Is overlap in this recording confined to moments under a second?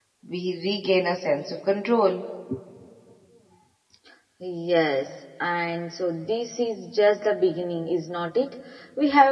Yes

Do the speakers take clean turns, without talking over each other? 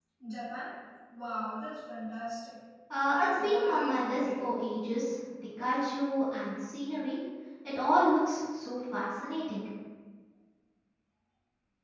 No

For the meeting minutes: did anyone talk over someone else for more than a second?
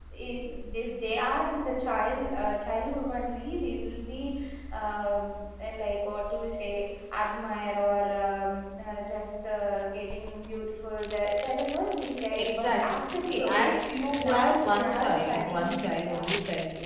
Yes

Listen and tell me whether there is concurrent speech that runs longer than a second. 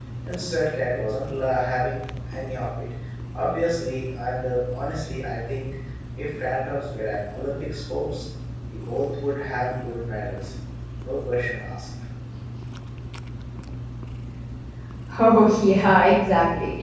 No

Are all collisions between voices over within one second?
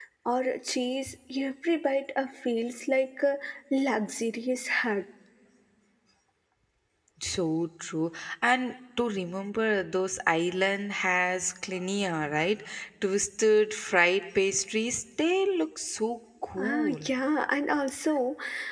Yes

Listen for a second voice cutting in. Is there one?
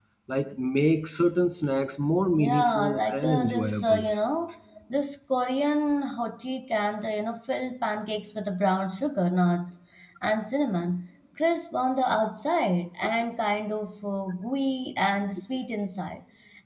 Yes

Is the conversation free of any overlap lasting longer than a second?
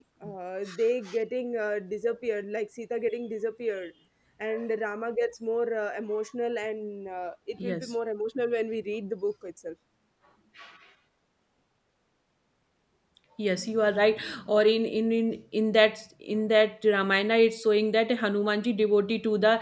Yes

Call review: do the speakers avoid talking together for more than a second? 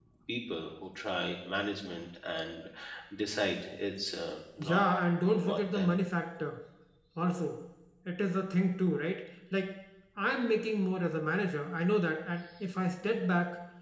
Yes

